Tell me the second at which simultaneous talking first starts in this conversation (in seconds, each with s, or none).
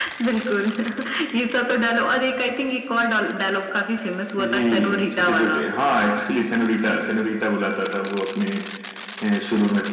4.4 s